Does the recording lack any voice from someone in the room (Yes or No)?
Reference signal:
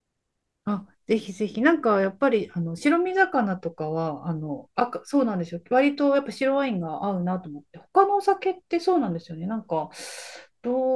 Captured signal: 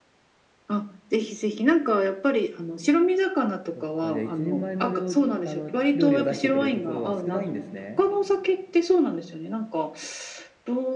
No